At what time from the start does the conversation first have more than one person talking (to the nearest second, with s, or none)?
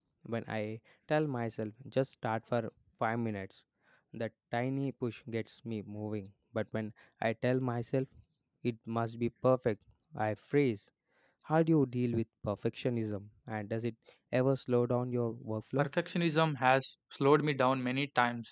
none